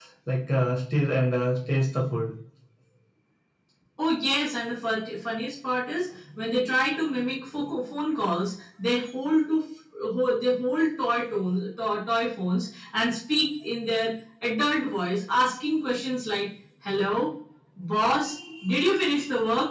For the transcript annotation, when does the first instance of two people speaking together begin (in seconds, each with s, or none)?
none